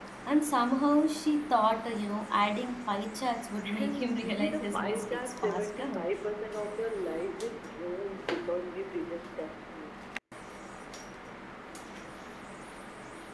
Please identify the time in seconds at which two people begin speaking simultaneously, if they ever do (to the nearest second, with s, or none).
4 s